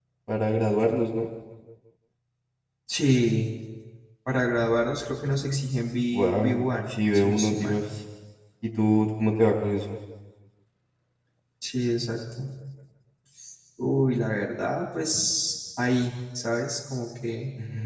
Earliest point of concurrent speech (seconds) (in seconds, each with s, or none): 6.1 s